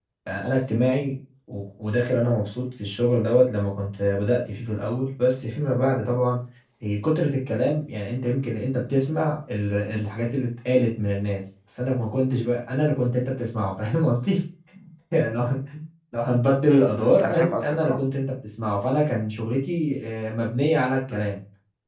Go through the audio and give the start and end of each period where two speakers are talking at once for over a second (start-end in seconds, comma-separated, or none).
16.7-18.0